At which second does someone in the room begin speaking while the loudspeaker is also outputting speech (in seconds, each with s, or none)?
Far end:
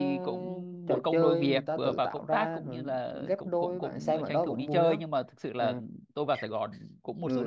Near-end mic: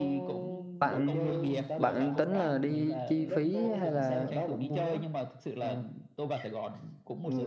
0.8 s